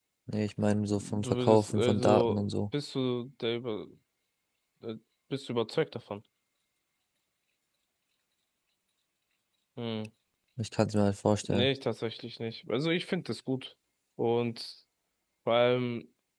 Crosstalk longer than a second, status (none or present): present